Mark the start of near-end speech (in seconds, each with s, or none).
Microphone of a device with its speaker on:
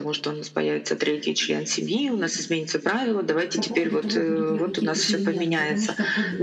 3.5 s